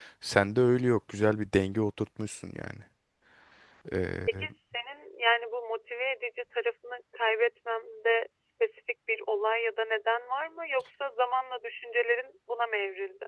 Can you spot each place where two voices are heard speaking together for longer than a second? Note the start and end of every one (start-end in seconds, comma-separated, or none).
none